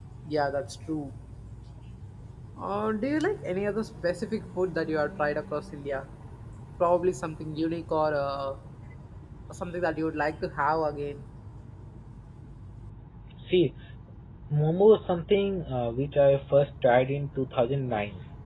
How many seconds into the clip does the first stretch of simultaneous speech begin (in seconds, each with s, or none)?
none